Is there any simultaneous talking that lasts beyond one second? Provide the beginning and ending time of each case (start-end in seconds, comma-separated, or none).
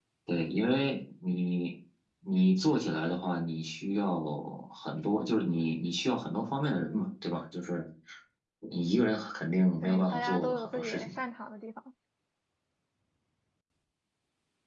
9.8-11.1